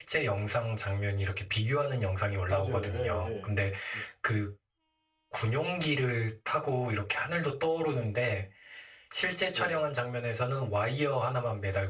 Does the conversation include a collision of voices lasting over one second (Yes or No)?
Yes